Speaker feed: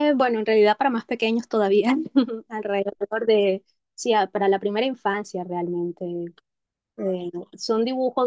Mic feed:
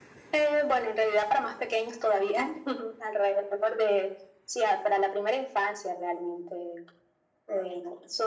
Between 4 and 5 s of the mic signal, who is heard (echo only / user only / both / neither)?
echo only